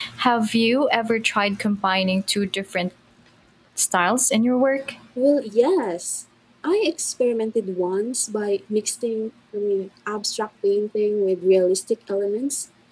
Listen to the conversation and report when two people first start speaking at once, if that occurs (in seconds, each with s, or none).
none